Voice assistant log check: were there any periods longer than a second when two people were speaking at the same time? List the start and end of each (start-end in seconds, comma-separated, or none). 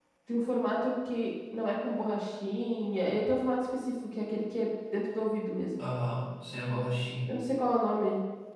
none